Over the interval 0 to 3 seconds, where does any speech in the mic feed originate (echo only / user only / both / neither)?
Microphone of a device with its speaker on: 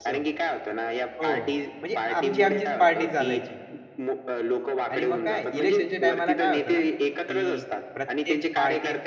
both